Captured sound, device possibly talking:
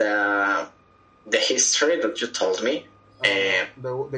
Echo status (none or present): present